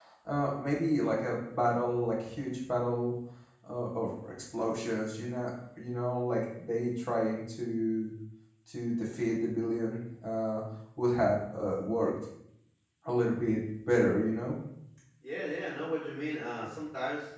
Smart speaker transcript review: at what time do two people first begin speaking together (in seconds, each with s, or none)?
none